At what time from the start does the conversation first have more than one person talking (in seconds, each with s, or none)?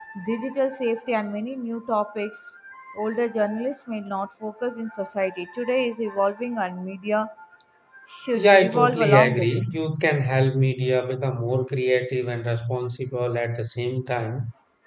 8.3 s